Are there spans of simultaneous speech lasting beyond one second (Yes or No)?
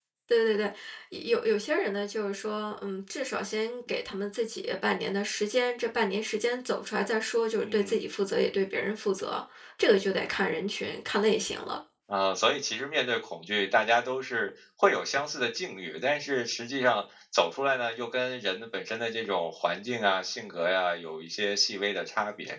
No